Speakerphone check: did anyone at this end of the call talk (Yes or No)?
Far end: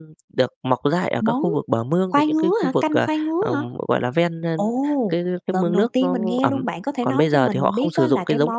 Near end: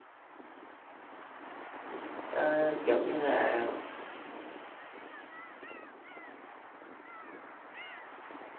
Yes